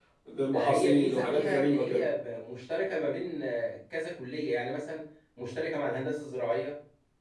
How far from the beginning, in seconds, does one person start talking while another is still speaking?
1 s

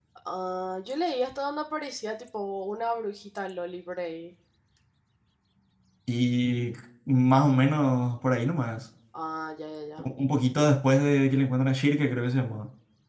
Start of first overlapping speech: none

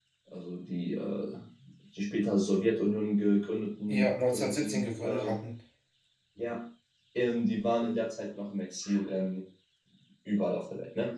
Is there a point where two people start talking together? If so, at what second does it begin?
4 s

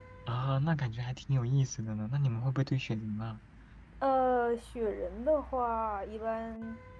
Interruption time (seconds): none

